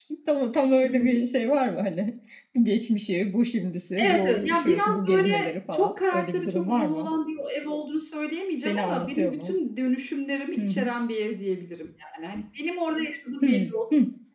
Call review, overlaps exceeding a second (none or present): present